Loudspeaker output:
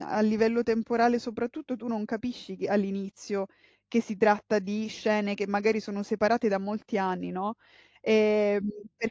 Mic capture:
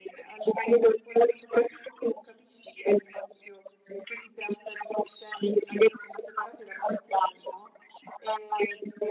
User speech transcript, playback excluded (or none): none